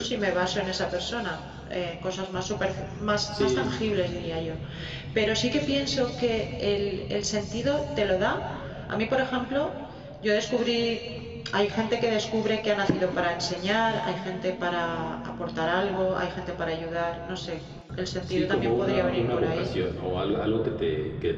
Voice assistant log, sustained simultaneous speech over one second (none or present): present